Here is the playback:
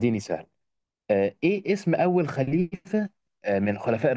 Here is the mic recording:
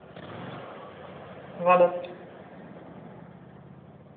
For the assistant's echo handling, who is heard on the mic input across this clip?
user only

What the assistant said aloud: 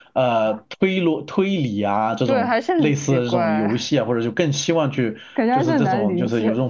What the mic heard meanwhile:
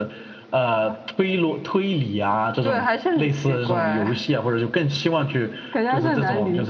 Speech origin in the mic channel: echo only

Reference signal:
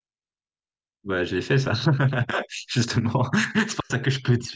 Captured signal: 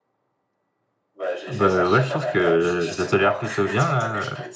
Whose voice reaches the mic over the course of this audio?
both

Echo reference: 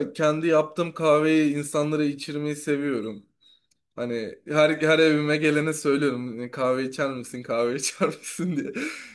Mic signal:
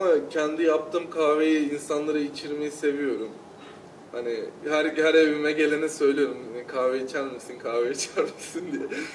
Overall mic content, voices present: echo only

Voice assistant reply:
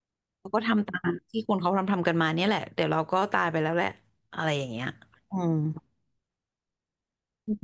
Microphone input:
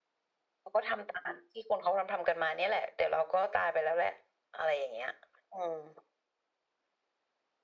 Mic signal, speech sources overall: echo only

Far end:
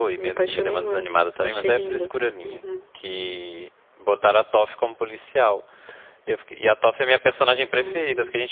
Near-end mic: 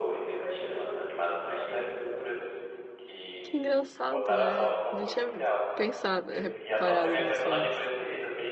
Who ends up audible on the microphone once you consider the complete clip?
both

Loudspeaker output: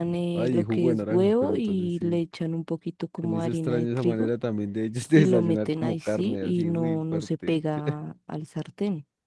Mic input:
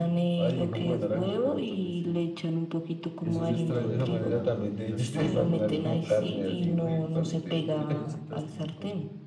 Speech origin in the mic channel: both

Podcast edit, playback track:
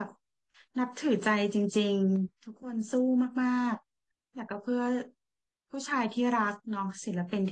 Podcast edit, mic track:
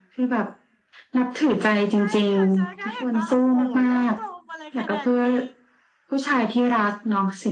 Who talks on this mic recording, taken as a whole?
both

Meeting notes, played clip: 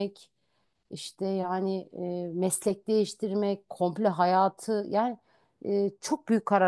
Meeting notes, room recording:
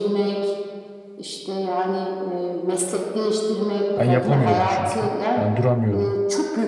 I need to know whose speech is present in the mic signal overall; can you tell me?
both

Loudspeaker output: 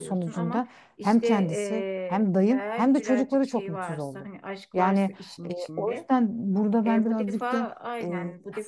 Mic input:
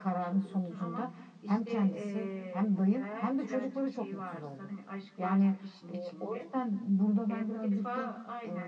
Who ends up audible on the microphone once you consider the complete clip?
echo only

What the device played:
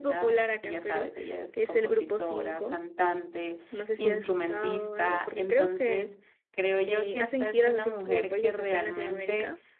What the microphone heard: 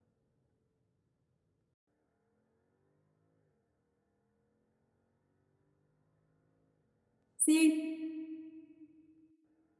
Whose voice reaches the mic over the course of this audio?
user only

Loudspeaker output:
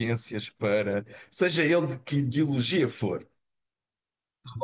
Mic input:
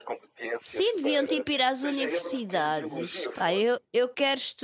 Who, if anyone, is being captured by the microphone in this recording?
both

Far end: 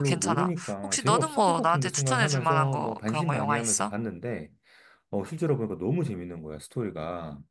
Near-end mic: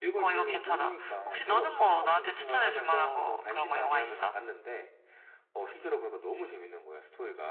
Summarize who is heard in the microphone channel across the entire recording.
echo only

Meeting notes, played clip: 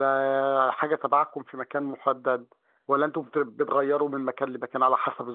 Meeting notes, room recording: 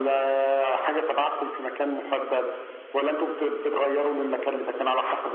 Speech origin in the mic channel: echo only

